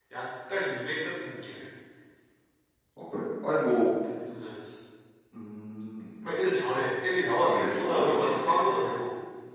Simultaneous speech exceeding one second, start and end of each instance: 7.4-8.8

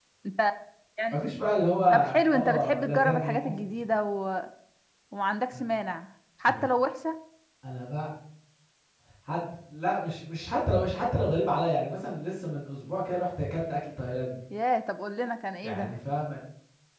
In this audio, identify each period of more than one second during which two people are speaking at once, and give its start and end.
1.9-3.6

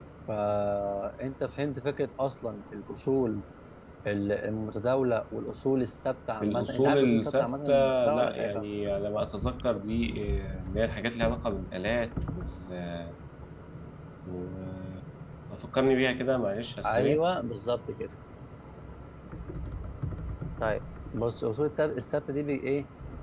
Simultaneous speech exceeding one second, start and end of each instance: 6.4-8.6

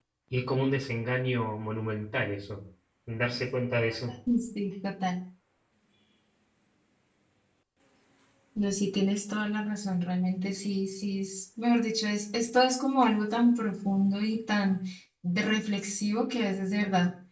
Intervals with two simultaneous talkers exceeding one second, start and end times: none

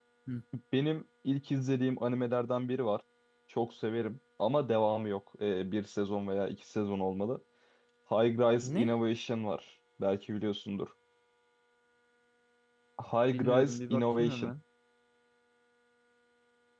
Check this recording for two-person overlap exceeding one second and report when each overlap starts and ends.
13.3-14.5

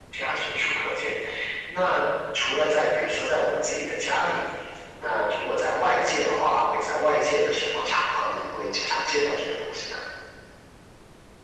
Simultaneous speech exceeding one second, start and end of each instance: none

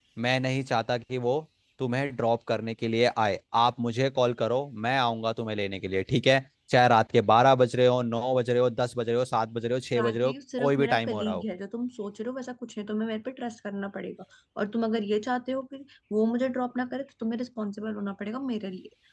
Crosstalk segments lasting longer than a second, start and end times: 9.9-11.4

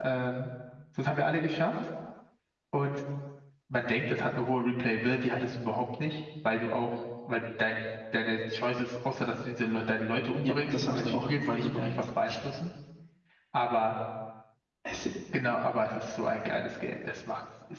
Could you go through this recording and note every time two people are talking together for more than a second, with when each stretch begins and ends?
10.4-11.9

